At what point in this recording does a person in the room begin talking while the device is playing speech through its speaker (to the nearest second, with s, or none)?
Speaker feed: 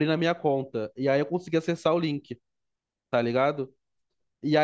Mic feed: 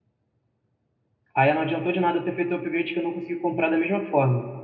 1 s